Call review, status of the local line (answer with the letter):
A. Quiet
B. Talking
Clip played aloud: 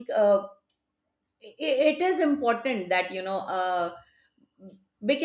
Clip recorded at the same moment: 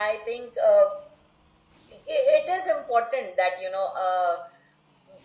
A